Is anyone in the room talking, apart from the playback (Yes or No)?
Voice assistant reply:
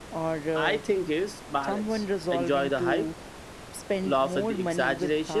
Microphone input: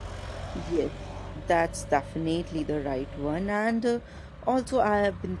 Yes